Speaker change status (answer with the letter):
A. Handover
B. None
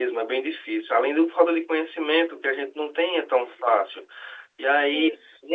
B